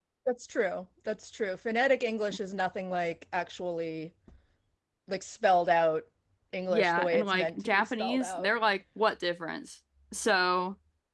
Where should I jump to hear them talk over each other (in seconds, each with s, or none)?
6.7 s